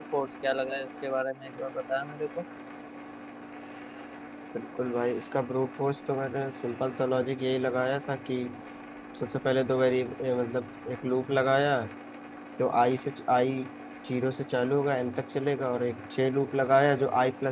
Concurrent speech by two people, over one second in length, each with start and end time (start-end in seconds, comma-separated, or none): none